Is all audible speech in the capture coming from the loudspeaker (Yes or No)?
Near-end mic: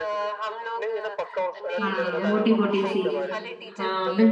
No